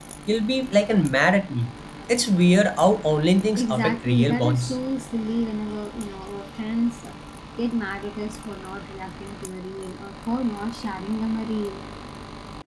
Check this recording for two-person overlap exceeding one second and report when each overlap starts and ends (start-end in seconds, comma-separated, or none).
3.5-4.8